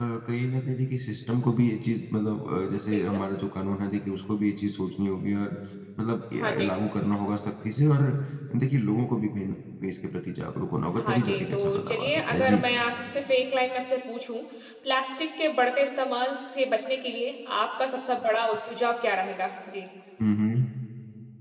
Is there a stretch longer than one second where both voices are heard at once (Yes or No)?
Yes